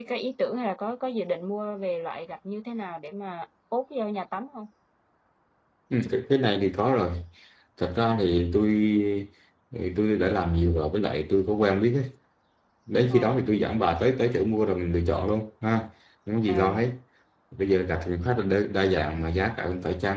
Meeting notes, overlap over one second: none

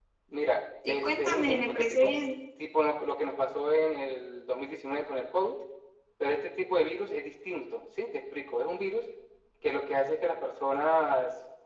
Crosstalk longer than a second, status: present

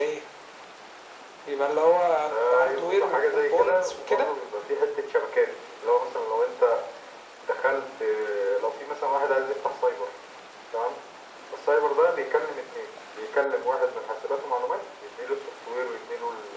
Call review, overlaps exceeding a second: present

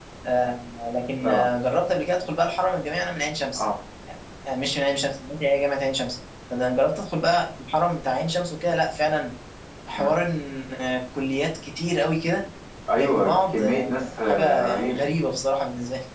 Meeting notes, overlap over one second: present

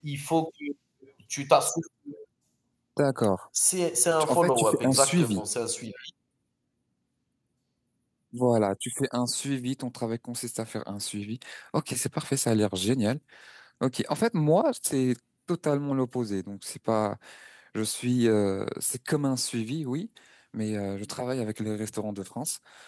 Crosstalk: present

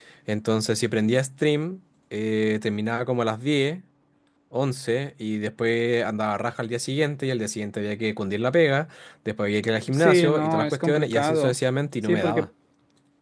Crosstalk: present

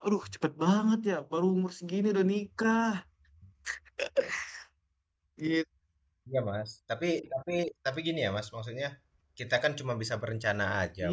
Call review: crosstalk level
none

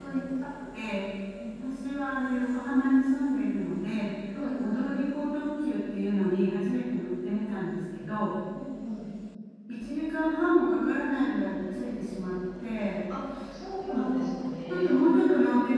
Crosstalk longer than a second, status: none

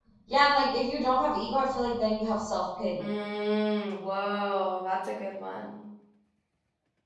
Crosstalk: none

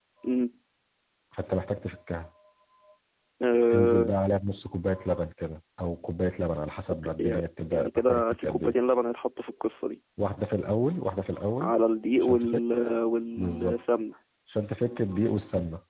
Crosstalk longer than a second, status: present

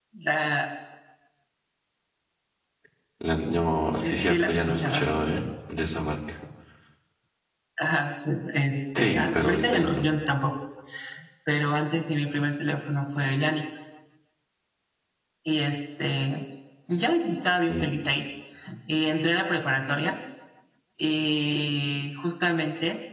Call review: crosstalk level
present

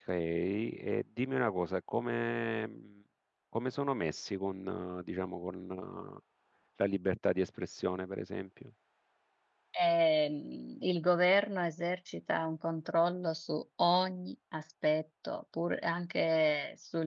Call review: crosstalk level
none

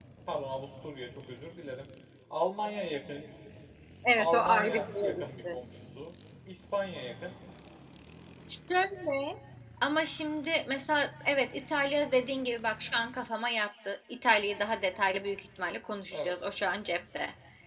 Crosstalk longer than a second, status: present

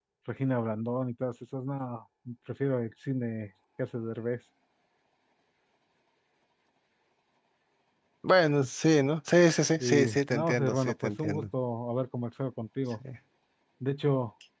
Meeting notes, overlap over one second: present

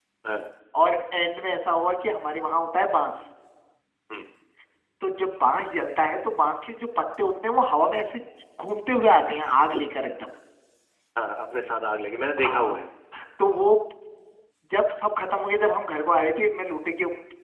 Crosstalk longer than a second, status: none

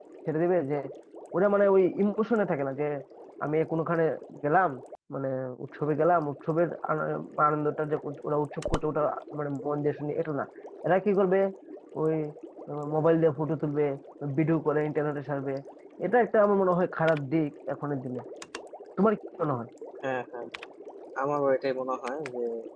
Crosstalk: none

